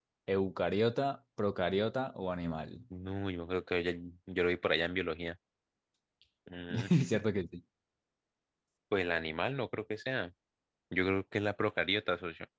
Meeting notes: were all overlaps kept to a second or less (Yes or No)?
Yes